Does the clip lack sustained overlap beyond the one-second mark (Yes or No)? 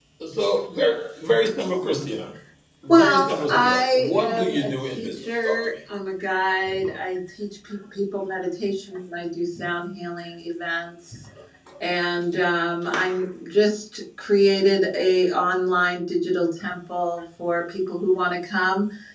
No